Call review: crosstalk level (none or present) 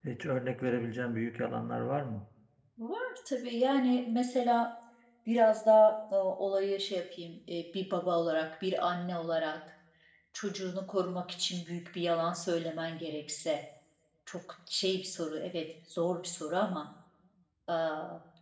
none